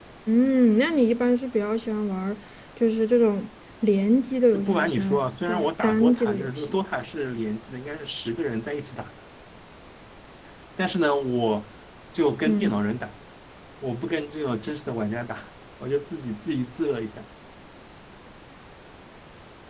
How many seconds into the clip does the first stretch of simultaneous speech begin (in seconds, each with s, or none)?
4.5 s